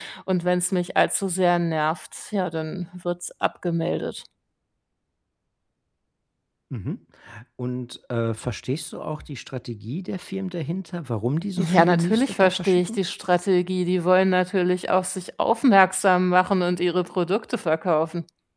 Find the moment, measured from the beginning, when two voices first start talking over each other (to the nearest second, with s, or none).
12 s